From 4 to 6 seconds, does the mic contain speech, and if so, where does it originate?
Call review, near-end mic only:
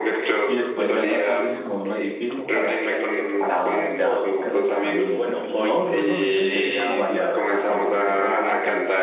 both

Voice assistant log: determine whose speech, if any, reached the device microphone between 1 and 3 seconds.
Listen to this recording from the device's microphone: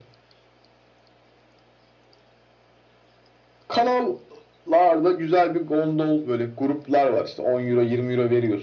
neither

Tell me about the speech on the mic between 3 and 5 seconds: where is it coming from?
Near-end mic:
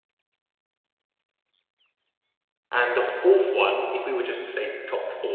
user only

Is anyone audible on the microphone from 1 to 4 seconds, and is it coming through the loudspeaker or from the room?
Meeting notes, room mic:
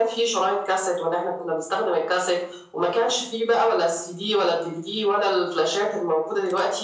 echo only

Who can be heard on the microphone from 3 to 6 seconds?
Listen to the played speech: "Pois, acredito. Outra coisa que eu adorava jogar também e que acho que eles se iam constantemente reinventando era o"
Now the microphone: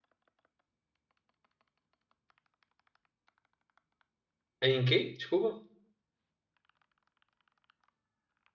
user only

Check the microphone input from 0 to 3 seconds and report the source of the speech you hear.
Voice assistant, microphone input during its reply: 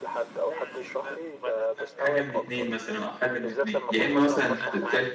both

